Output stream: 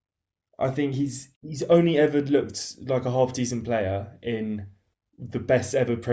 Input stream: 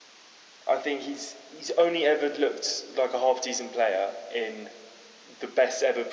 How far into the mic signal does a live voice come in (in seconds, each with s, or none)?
none